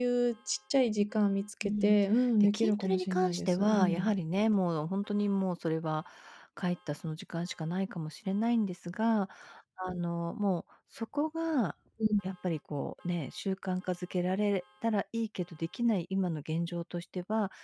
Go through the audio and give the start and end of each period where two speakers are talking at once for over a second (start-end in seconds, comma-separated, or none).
2.4-4.1